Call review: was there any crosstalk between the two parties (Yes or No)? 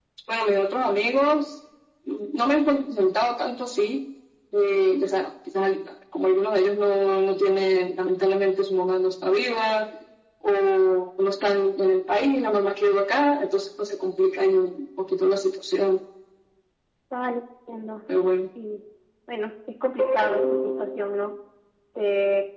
No